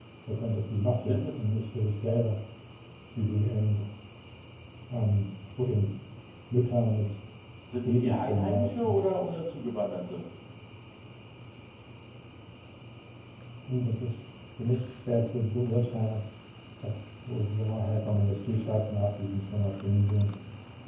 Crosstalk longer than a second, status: present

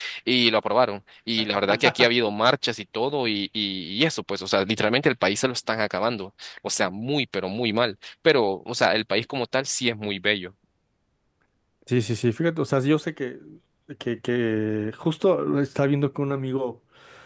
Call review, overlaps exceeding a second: none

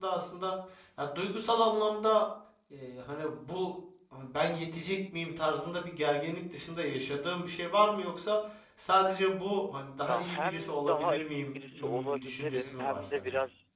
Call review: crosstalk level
present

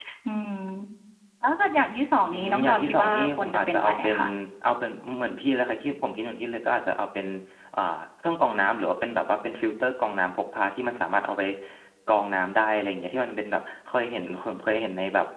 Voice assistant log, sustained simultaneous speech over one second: present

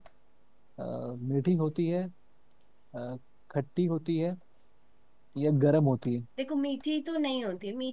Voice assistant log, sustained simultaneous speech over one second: none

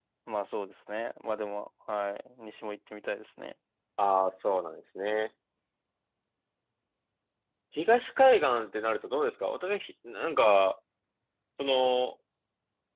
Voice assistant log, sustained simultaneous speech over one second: none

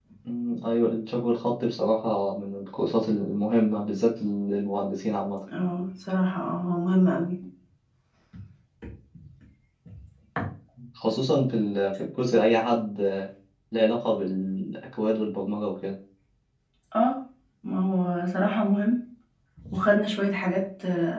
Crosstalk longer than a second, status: none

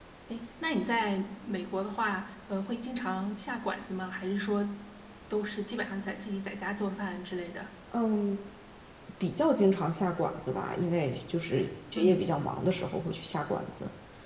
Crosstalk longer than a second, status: none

